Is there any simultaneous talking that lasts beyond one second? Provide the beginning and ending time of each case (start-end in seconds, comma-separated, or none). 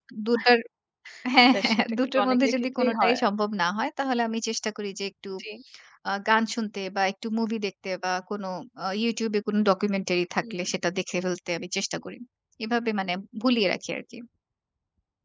1.5-3.2